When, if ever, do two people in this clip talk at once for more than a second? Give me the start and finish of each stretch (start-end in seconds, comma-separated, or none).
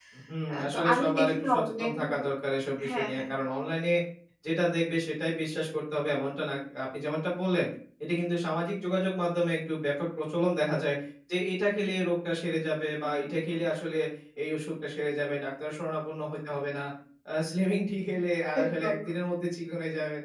0.5-2.1